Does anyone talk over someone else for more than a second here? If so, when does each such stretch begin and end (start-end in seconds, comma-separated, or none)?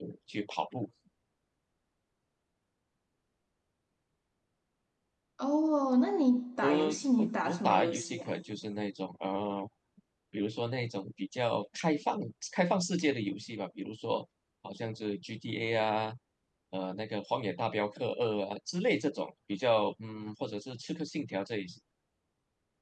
6.6-8.3